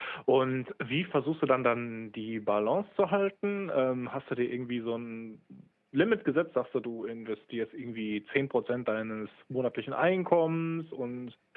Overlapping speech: No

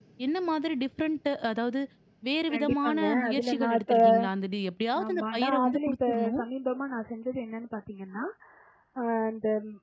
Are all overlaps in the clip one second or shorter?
No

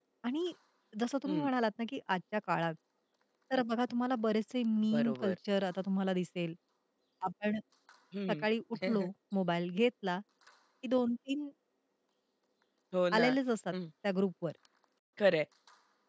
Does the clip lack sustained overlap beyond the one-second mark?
Yes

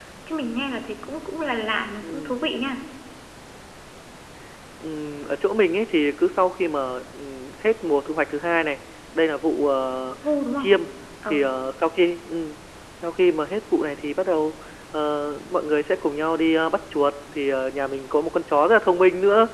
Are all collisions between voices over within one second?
Yes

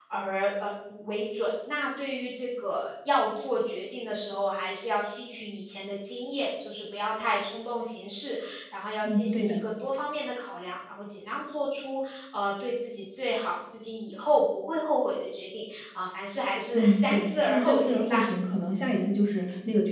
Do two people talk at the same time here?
Yes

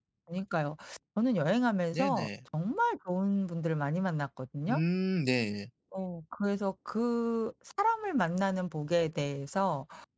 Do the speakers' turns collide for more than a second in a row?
No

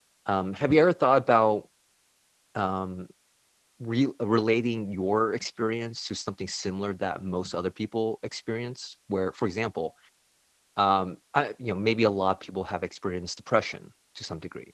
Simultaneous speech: No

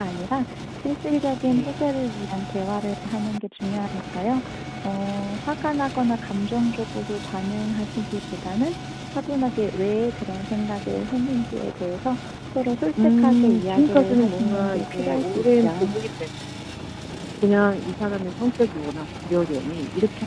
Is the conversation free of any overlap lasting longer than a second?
No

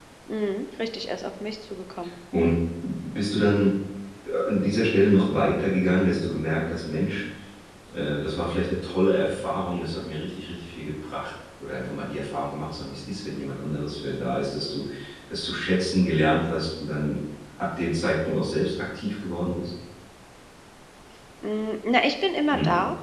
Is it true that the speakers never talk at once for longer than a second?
Yes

